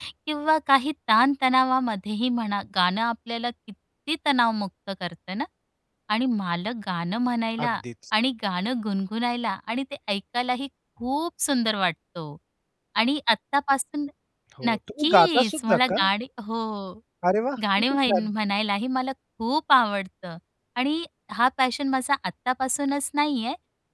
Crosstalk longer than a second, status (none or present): present